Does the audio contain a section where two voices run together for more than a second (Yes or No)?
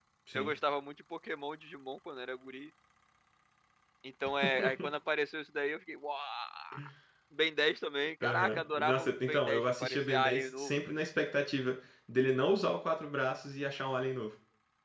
Yes